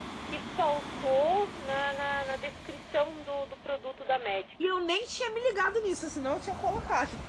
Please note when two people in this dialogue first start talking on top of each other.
none

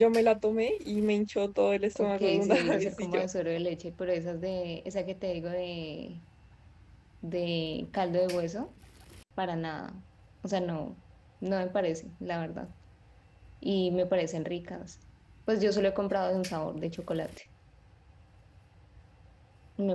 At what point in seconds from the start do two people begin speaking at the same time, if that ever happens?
1.9 s

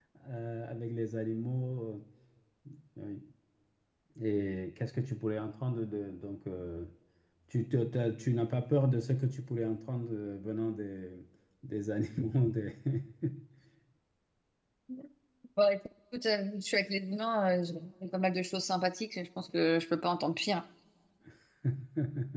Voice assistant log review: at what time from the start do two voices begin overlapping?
none

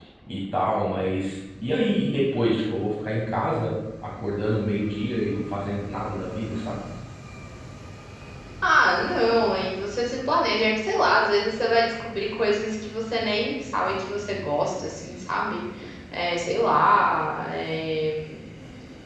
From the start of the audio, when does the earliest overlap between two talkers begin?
none

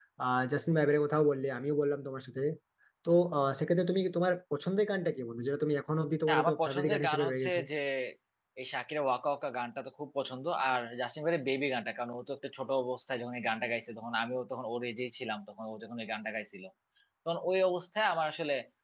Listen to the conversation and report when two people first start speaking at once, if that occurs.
6.3 s

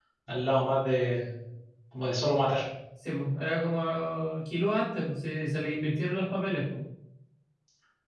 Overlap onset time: none

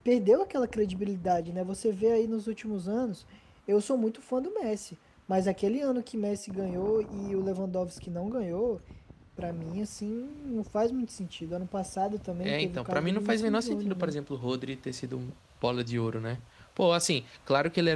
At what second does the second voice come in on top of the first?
12.4 s

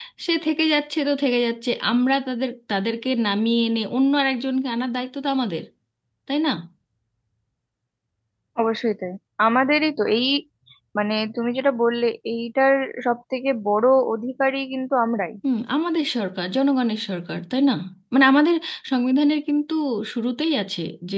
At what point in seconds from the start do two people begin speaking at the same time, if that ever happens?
none

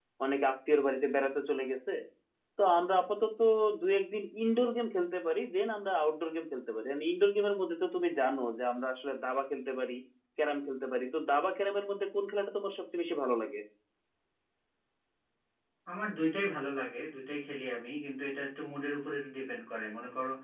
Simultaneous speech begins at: none

